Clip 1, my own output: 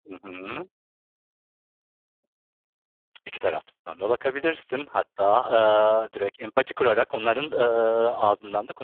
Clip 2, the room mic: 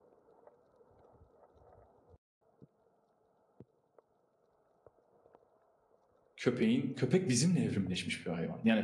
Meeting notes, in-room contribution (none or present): present